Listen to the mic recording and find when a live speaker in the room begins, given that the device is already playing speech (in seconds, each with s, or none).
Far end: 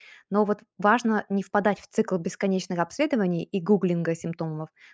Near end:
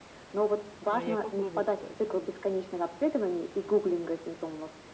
0.9 s